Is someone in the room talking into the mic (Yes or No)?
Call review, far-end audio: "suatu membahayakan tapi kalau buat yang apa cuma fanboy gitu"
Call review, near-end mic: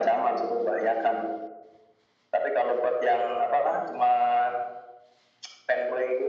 No